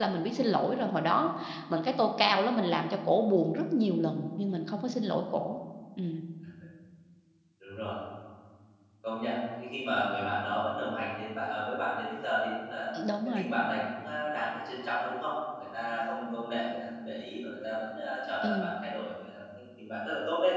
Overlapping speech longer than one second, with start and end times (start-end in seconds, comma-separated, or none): none